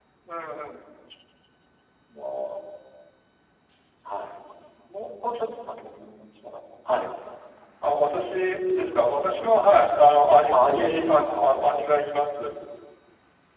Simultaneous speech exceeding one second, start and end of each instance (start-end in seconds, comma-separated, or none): 10.5-11.9